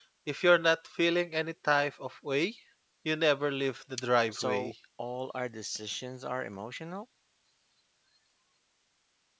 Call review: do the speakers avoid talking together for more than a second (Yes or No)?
Yes